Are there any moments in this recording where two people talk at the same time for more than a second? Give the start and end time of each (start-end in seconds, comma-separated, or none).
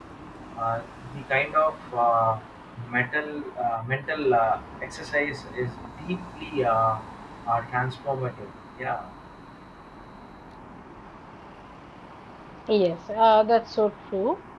none